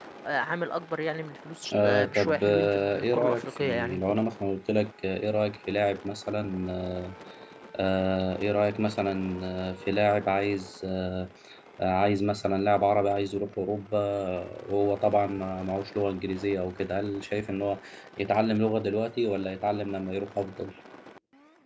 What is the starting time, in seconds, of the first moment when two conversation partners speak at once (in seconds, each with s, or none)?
1.7 s